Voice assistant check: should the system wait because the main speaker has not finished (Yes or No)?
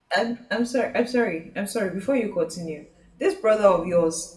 Yes